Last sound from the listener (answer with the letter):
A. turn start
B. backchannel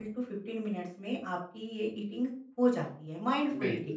A